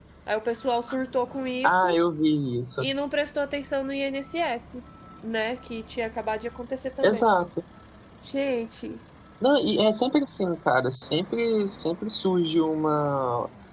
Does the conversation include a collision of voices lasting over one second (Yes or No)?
No